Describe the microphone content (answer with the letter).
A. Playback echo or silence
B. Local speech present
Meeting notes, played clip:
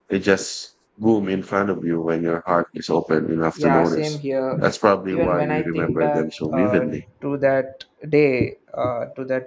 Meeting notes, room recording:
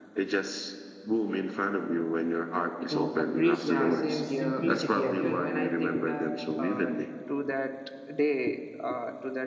B